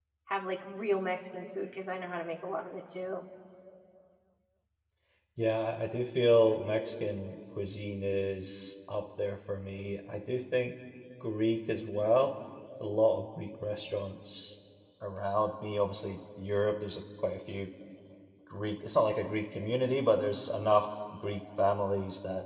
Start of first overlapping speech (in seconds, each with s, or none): none